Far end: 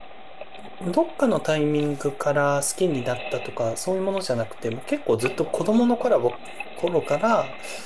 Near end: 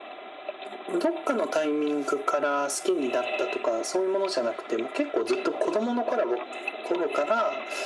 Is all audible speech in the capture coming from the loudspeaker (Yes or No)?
Yes